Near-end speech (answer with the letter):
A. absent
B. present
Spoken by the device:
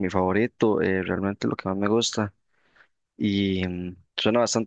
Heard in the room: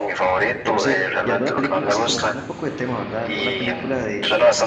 B